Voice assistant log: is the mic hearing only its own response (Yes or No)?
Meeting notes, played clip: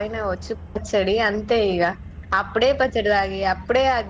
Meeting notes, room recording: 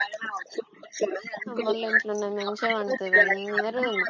No